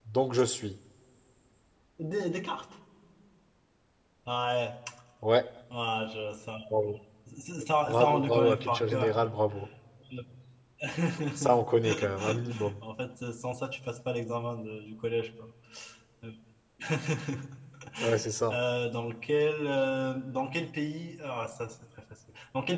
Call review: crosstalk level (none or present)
present